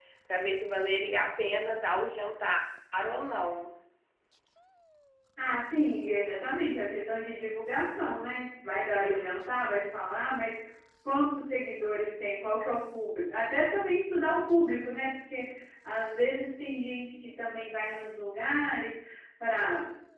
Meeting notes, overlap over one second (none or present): none